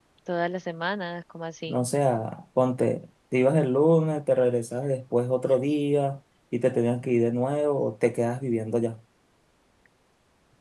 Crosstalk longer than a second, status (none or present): none